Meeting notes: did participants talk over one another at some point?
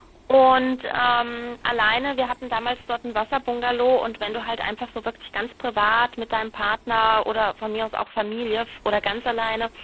No

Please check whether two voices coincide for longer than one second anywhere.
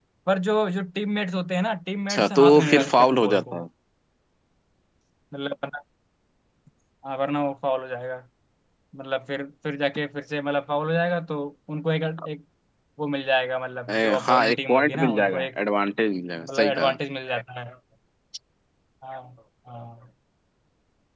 Yes, from 2.1 s

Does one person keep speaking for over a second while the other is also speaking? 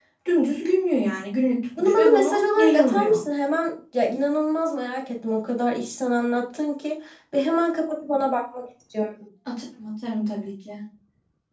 Yes, from 1.8 s

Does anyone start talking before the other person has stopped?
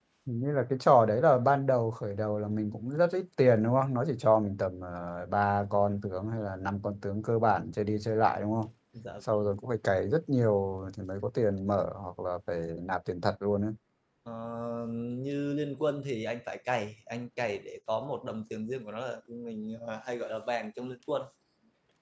No

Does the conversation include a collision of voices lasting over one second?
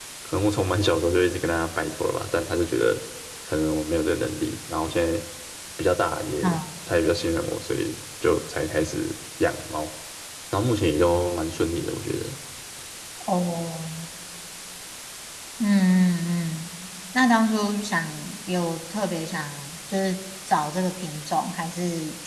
No

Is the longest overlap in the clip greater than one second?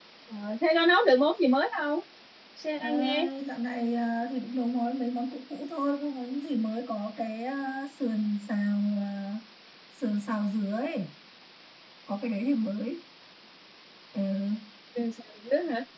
No

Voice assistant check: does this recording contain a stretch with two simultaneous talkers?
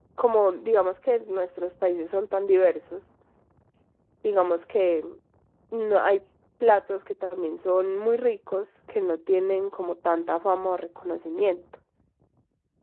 No

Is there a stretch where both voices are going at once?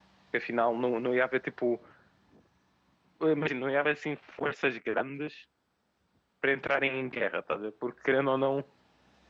No

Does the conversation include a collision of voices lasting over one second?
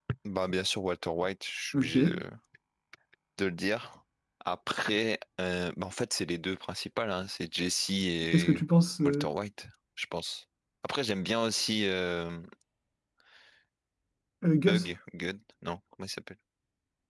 No

